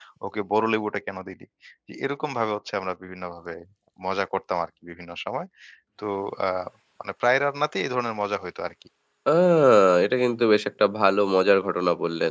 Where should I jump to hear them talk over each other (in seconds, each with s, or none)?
none